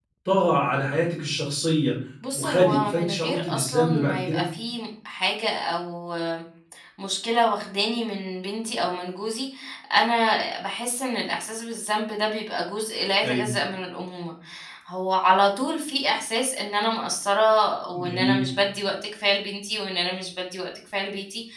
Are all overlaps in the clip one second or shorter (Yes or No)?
No